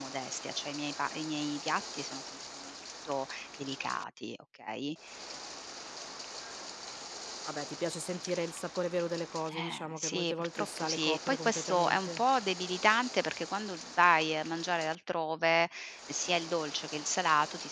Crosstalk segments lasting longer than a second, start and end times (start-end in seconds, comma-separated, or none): 9.5-12.2